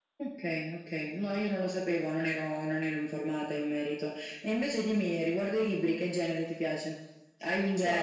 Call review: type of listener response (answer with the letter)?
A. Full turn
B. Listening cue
A